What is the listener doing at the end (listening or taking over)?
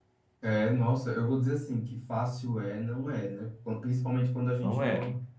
listening